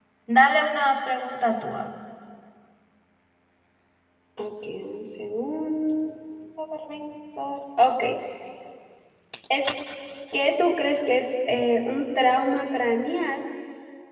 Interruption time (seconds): none

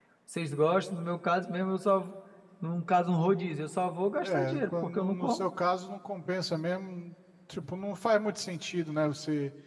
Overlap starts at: 4.2 s

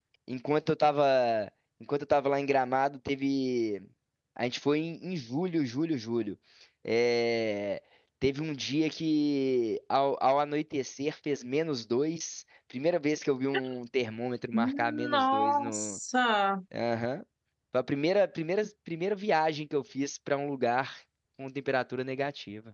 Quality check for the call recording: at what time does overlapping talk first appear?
14.5 s

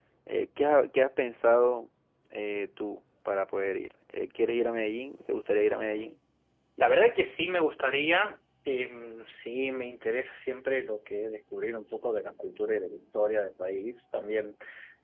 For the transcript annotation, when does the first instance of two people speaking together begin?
none

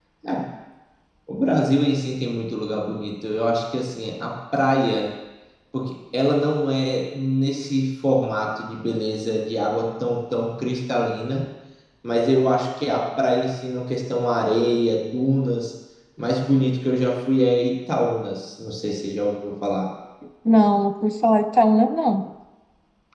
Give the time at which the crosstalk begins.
none

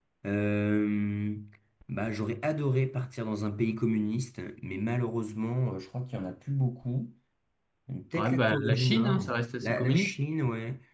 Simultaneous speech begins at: 8.1 s

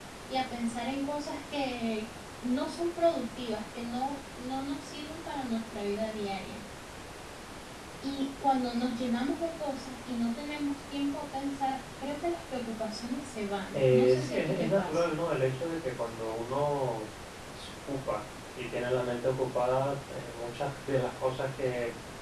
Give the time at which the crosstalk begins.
13.7 s

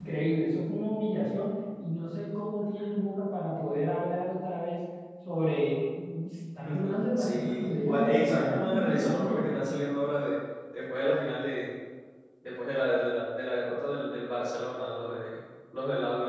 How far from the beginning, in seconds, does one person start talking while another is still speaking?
7.2 s

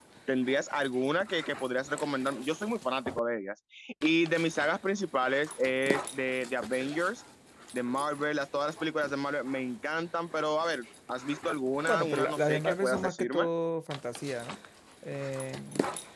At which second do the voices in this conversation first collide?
11.9 s

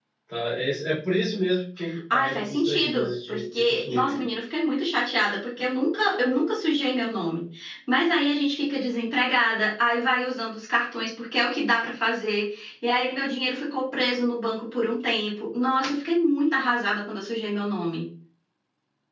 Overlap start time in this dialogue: 2.1 s

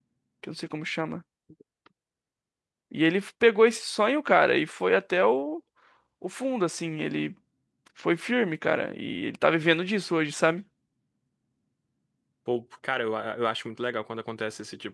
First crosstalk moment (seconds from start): none

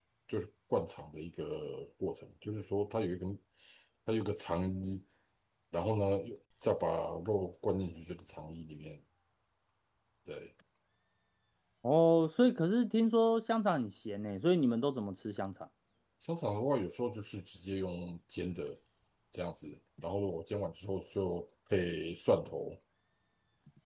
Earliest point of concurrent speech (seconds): none

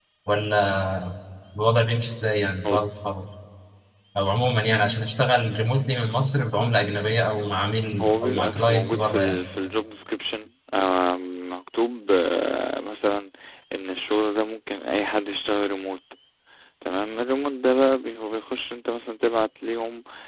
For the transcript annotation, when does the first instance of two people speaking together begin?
8.0 s

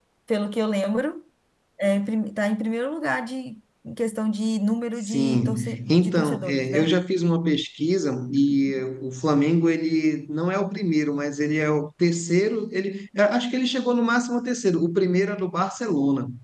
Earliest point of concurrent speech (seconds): 5.0 s

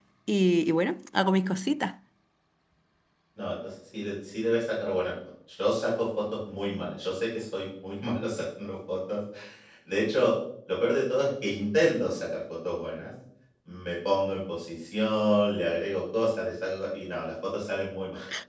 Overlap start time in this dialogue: none

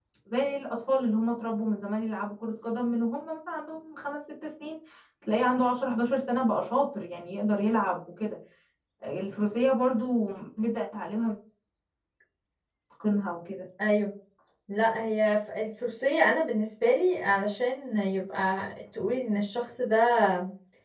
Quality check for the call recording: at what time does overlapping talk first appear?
none

